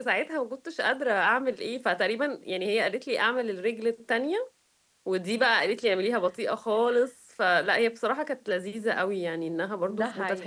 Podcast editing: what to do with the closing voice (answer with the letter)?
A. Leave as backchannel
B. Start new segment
A